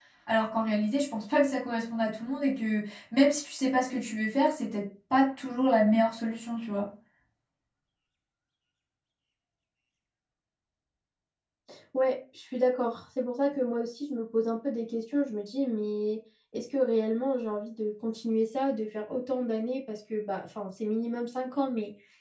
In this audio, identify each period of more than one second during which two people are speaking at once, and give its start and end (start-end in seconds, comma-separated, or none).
none